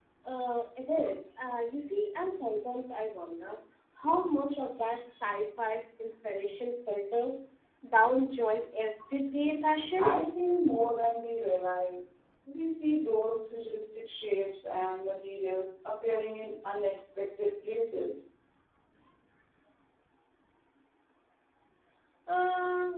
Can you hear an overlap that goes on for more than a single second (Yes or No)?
No